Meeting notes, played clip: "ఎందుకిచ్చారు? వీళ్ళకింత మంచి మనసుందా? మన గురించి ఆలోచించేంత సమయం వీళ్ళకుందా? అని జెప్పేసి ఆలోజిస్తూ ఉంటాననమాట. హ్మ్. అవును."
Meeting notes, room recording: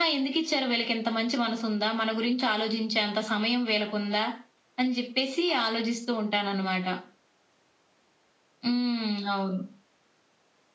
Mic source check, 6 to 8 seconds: echo only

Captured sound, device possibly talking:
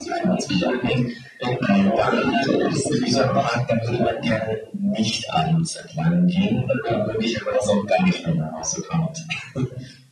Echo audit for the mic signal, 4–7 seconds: echo only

